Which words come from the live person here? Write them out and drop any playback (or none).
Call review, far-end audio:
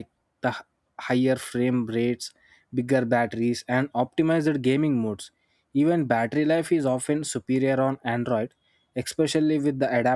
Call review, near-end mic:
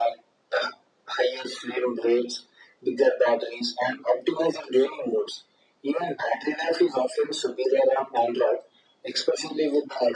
none